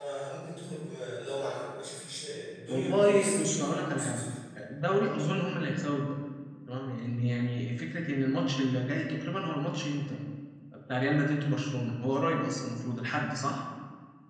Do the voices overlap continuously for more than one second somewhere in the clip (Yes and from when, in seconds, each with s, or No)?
Yes, from 2.7 s